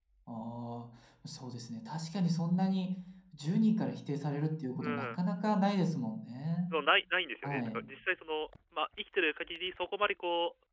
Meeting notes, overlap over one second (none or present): none